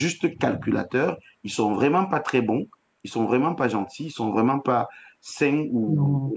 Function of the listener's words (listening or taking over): listening